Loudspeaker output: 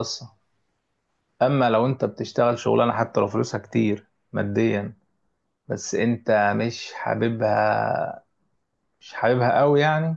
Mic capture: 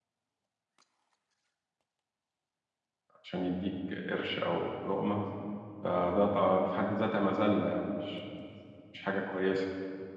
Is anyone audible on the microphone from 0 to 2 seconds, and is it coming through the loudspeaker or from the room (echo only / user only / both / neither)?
neither